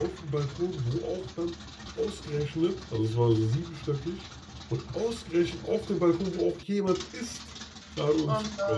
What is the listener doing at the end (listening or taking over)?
listening